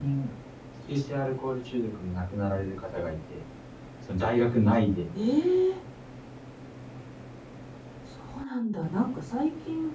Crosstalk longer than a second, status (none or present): none